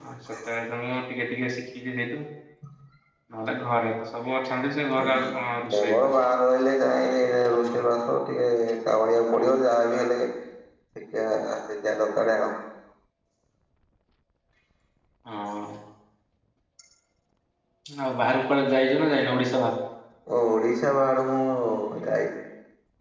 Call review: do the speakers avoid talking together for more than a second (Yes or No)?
Yes